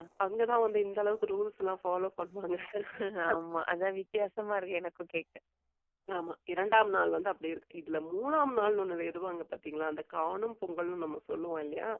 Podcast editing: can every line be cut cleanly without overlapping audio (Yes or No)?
Yes